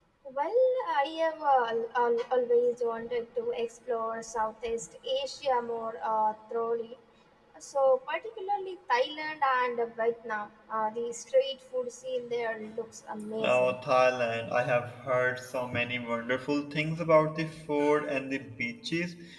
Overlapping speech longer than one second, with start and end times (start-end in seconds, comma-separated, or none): none